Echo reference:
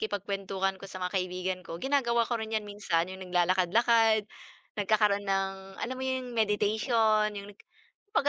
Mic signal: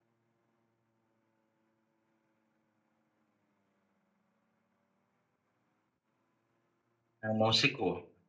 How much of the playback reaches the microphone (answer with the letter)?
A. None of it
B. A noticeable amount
A